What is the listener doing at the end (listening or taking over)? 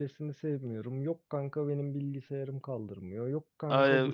taking over